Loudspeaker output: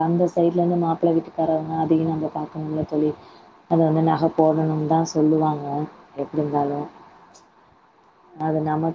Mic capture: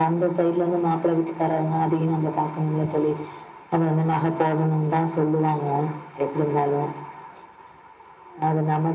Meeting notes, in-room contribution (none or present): none